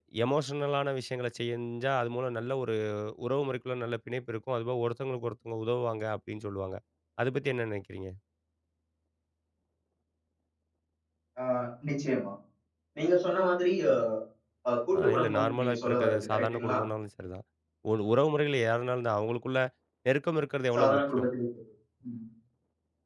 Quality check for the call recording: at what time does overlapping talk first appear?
15.0 s

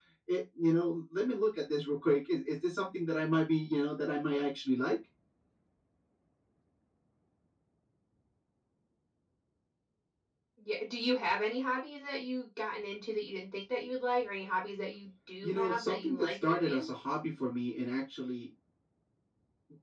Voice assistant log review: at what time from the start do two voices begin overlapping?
15.4 s

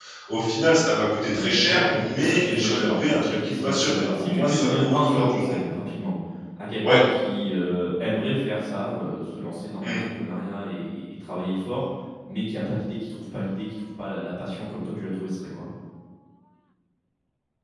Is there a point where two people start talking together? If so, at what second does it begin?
1.3 s

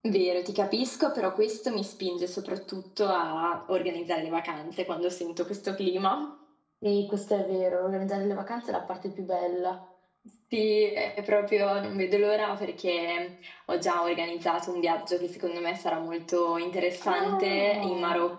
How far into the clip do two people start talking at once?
17.0 s

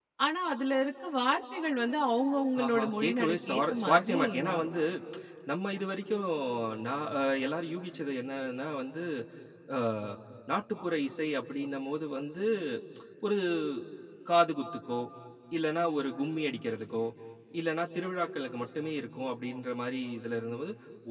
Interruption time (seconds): 2.6 s

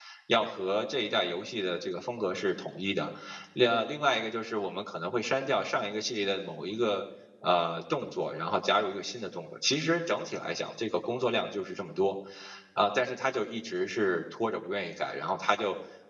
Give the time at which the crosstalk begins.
none

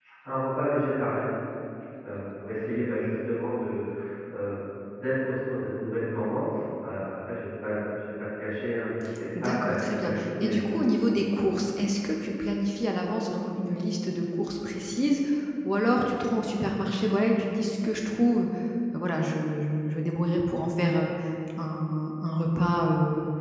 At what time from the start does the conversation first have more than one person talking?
9.4 s

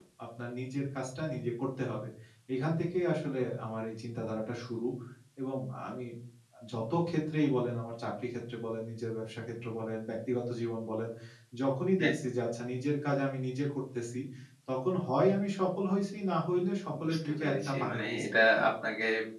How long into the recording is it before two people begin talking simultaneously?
17.0 s

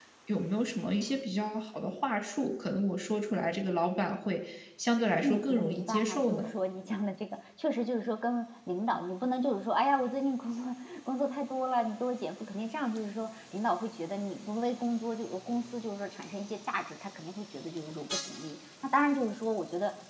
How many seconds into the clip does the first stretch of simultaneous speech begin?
5.2 s

